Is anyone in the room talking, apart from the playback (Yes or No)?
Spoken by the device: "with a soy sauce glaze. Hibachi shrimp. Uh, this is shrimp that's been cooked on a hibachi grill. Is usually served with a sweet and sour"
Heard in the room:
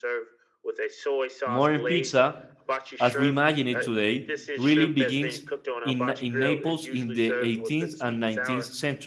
Yes